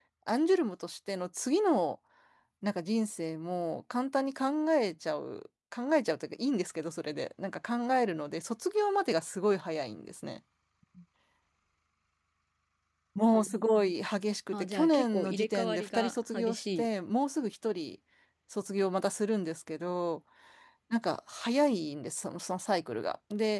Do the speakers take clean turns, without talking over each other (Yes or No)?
No